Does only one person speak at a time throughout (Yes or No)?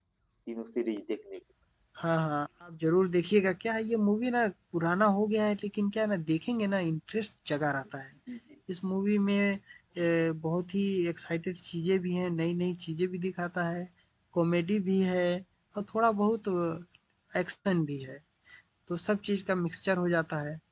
Yes